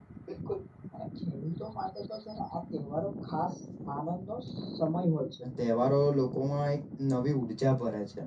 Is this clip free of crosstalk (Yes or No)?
Yes